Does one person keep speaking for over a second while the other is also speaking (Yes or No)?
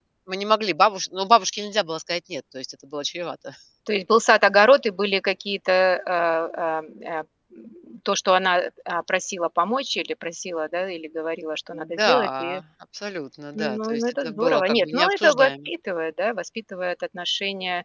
Yes